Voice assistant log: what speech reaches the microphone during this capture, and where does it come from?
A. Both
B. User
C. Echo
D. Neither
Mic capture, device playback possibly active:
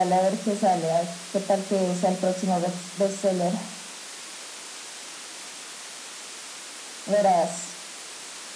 C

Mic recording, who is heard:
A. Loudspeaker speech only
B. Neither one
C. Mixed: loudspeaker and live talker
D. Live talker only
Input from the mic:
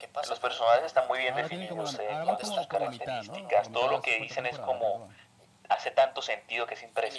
C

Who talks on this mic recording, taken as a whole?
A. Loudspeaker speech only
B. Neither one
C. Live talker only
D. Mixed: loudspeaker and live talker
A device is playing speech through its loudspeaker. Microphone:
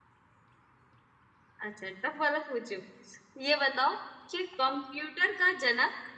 C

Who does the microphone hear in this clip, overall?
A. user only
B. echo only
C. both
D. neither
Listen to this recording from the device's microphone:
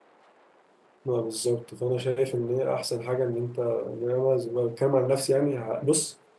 A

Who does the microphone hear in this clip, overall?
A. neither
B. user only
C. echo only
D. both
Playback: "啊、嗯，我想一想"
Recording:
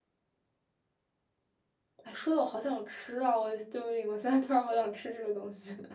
B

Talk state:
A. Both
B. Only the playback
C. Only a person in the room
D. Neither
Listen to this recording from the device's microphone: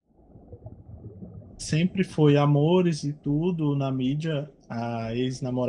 C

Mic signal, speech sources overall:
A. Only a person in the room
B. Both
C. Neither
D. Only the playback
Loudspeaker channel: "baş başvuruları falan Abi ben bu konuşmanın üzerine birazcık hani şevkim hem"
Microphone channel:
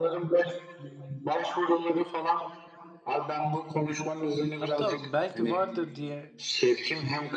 B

